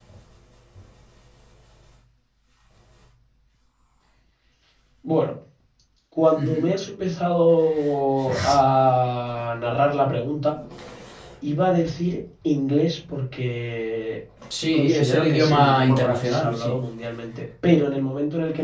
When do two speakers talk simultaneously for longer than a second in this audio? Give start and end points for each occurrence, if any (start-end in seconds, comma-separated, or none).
14.7-16.8